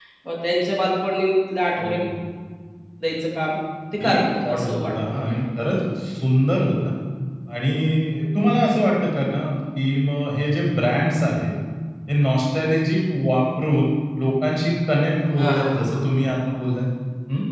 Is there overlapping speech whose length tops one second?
Yes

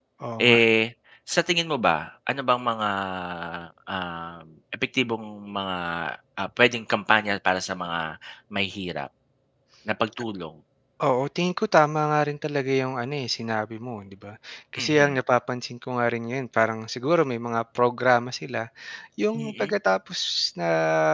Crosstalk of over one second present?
No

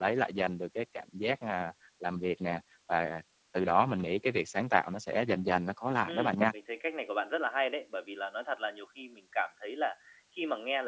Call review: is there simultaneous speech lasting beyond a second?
No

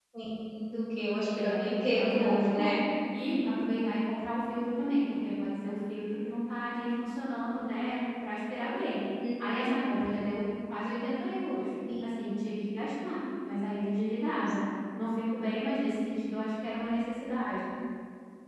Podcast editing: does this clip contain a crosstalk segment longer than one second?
Yes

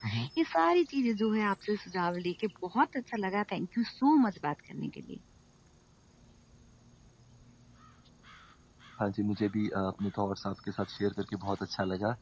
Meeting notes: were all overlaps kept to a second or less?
Yes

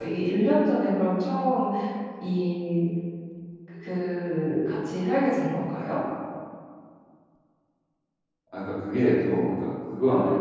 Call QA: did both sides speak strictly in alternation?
Yes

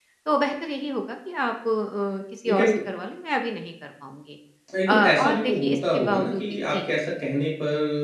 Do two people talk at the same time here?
Yes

